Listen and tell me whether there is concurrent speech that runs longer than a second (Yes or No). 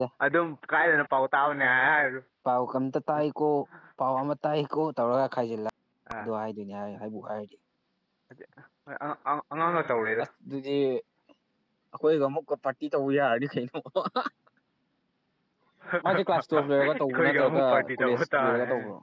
Yes